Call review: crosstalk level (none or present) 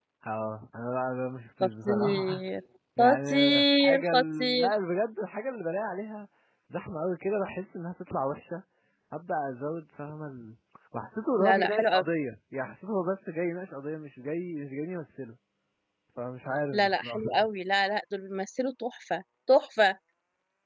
present